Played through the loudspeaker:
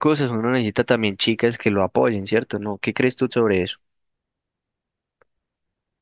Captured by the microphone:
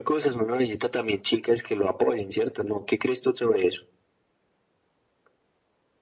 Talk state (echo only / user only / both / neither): echo only